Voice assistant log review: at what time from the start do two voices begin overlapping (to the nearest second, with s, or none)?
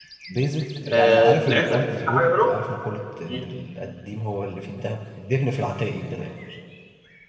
1 s